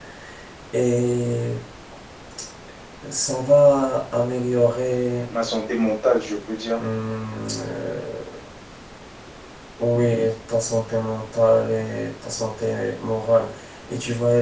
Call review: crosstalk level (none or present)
none